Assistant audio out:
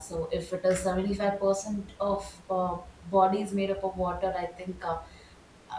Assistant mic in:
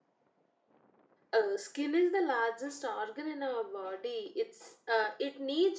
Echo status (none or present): none